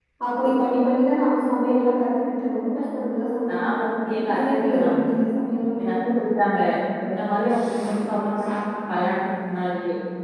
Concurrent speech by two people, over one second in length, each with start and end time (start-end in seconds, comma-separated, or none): 3.5-4.8